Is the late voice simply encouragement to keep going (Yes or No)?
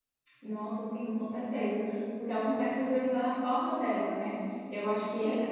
Yes